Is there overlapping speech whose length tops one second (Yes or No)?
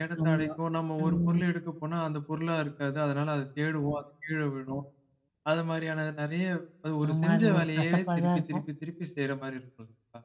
Yes